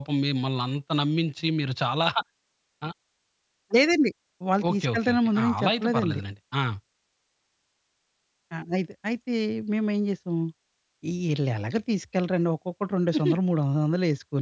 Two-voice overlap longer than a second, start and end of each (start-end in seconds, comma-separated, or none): 4.7-6.2